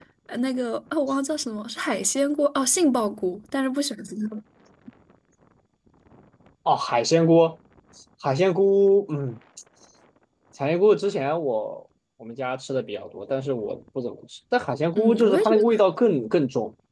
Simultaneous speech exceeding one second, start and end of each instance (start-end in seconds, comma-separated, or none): 15.0-16.3